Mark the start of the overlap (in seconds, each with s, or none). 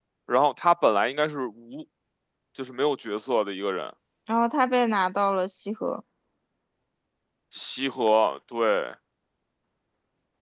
none